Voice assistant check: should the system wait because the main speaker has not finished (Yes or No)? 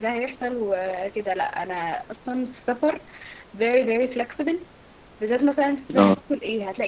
Yes